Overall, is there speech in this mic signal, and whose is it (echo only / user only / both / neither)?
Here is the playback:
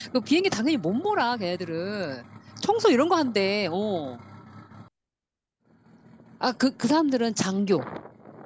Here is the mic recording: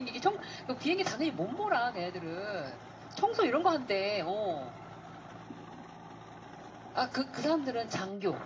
echo only